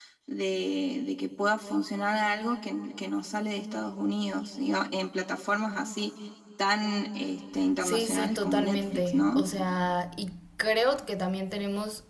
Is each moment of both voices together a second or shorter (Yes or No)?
No